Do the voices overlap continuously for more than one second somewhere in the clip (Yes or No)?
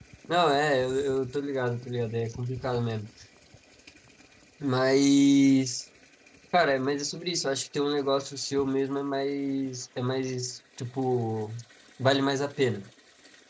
No